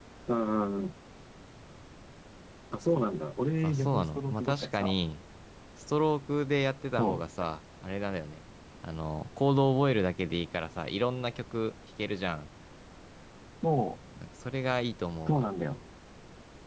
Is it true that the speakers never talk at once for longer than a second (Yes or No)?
No